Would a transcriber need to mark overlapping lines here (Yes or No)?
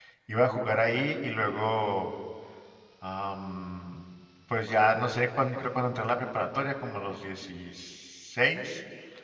No